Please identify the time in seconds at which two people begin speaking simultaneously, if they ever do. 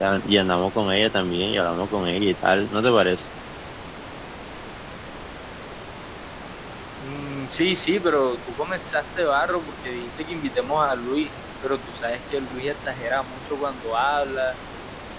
none

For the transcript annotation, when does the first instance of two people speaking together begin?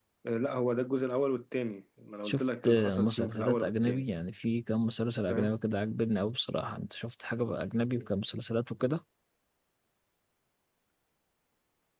2.2 s

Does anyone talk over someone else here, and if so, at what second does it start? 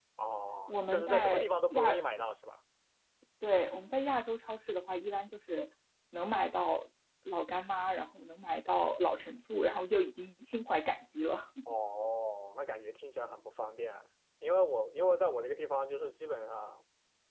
0.7 s

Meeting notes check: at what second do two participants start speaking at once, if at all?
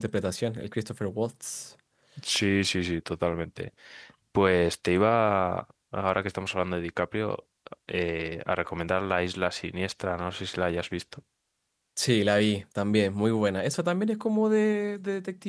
none

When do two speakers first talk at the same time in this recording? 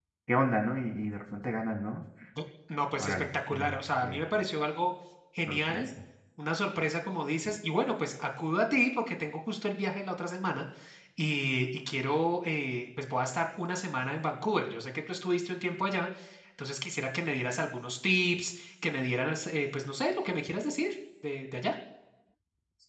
3.0 s

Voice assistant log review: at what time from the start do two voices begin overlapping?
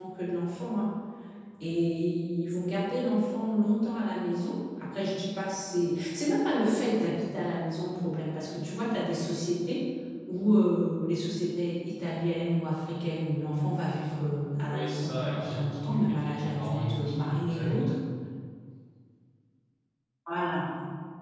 14.7 s

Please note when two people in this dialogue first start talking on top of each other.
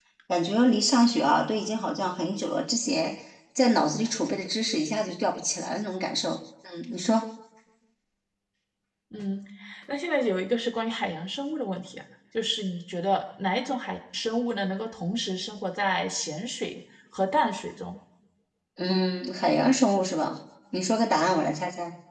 none

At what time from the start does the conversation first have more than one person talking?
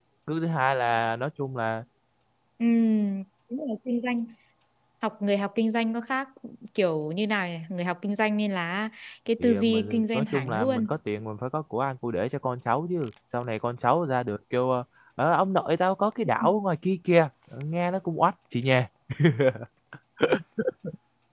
9.4 s

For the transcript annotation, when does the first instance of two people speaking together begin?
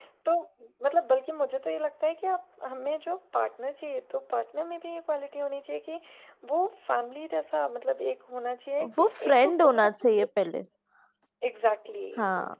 9.0 s

